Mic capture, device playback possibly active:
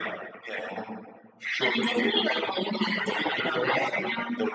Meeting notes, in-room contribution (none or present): none